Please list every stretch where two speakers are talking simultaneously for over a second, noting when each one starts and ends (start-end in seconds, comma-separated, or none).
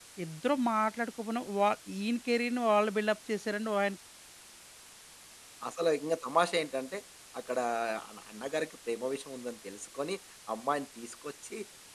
none